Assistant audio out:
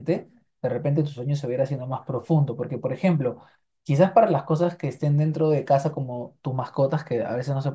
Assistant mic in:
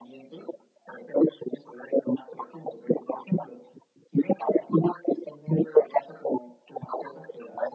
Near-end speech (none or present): none